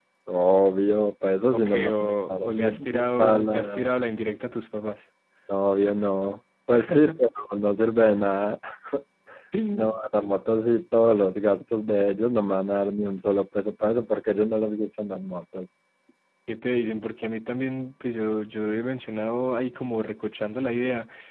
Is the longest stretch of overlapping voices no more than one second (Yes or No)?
No